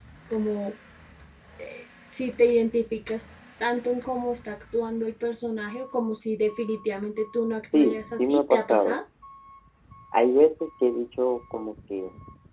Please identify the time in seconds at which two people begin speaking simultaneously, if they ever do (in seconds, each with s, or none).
7.7 s